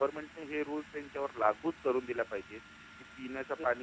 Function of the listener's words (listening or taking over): listening